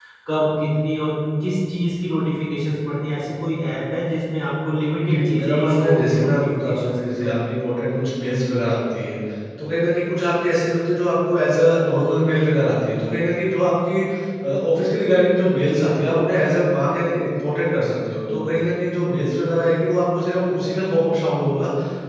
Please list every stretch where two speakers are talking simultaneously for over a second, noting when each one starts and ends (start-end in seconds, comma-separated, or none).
5.0-7.3